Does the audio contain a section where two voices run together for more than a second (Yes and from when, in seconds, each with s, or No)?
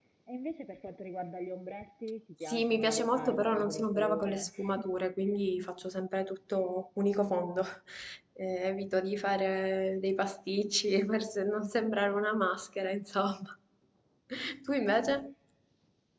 Yes, from 2.5 s